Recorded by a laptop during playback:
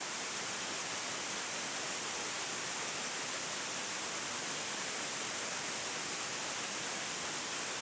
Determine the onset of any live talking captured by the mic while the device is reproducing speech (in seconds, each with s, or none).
none